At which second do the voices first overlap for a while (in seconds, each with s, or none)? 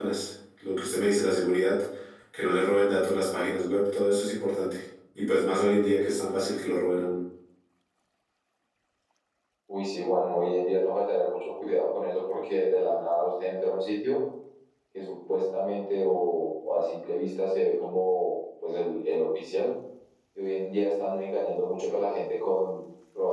none